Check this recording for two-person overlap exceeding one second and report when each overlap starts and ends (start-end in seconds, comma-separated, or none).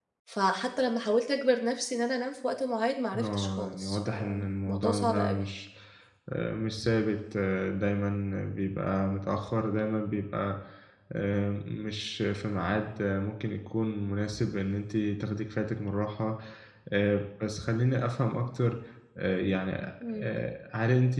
3.2-5.4